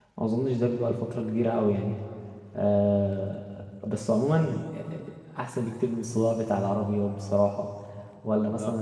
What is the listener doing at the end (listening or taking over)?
listening